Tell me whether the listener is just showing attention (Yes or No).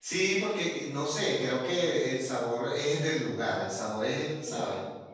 No